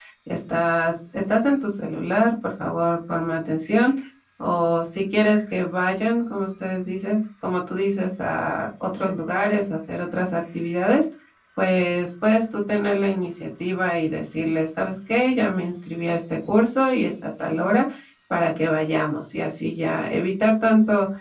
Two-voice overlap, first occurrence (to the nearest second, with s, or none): none